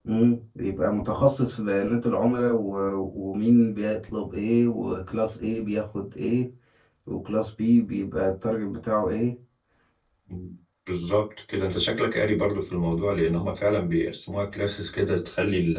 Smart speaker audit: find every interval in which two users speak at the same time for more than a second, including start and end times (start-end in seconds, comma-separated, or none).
none